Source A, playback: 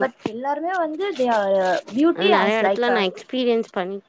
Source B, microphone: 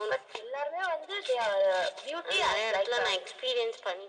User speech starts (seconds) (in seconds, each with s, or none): none